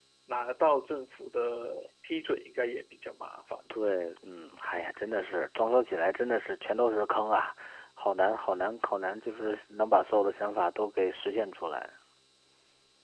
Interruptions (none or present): none